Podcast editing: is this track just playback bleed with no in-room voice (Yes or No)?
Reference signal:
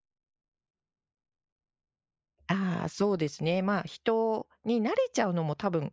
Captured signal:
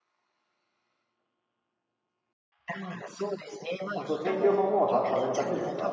No